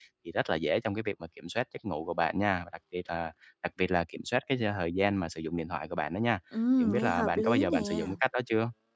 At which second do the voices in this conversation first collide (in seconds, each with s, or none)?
6.8 s